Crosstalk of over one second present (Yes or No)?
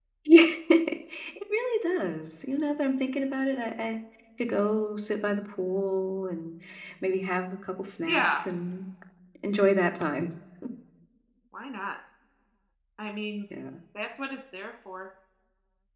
No